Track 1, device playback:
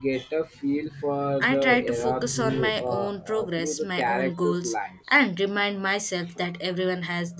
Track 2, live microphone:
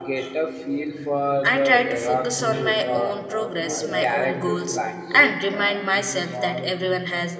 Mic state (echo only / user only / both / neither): both